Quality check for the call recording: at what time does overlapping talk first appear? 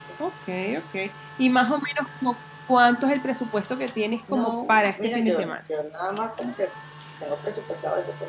4.3 s

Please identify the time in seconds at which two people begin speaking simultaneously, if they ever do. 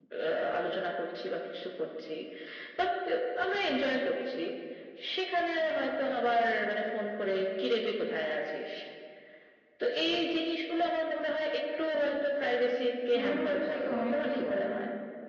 13.1 s

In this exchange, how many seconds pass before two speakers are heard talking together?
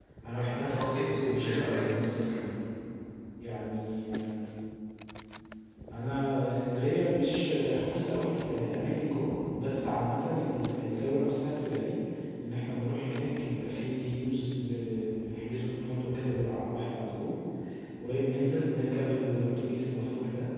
0.5 s

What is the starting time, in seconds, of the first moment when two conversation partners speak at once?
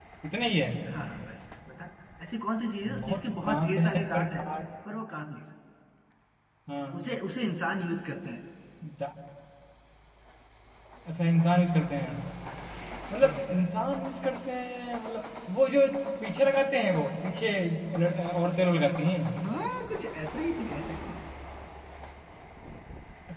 3.0 s

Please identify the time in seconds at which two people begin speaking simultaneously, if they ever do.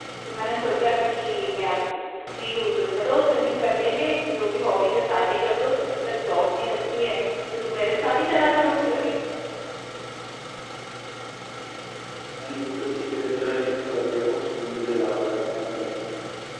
none

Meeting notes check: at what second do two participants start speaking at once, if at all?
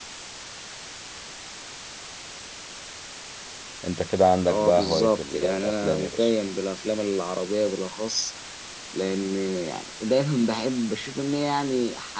4.5 s

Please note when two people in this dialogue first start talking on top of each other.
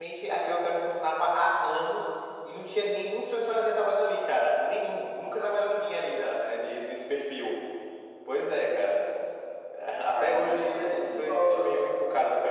10.1 s

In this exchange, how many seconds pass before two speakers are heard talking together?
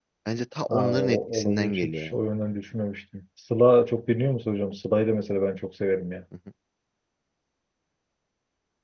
0.7 s

